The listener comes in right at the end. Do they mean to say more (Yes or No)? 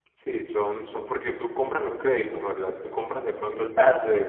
Yes